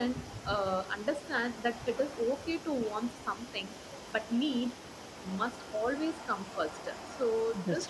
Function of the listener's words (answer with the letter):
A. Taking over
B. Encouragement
B